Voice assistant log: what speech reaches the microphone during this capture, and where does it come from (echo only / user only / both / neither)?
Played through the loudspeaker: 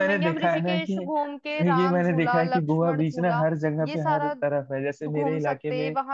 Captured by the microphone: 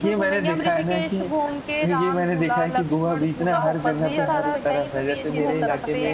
both